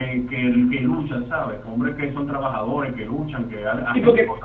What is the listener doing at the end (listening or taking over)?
taking over